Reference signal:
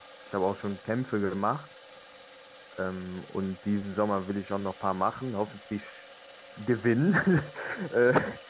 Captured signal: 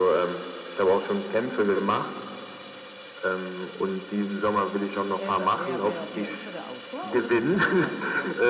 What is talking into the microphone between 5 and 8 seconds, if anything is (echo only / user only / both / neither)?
both